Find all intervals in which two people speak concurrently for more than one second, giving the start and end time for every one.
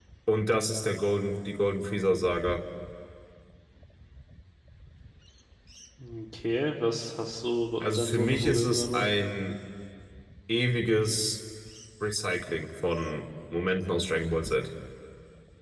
7.8-9.1

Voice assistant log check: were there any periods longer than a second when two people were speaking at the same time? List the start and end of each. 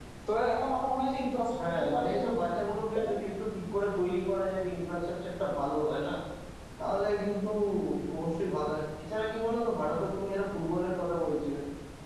1.7-3.1

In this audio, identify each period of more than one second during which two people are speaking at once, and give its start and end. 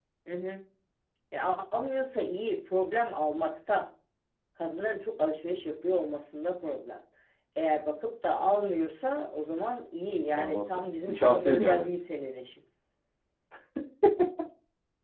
10.4-11.9

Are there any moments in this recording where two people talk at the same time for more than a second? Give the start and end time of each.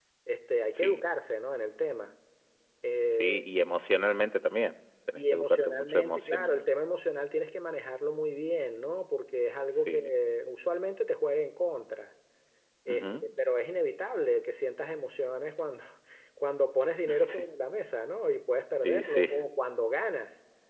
5.2-6.6

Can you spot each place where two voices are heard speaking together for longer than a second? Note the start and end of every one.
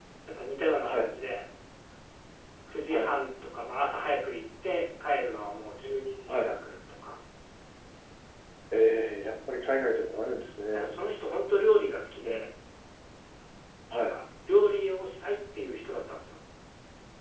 none

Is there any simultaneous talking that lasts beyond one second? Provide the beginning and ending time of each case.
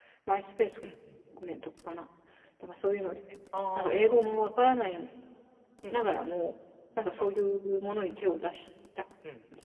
none

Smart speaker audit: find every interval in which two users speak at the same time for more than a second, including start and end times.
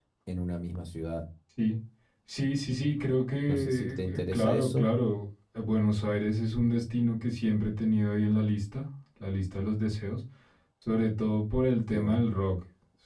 3.5-4.9

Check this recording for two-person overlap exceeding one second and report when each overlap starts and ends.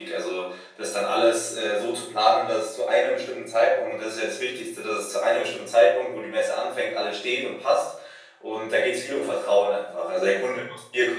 none

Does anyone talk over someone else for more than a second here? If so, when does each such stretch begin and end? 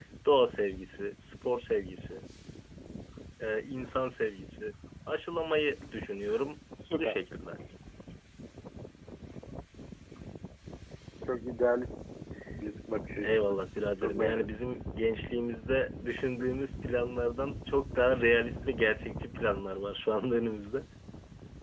none

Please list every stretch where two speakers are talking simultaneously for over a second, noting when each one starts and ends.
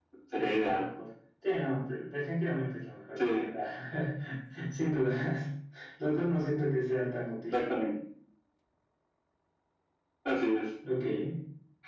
none

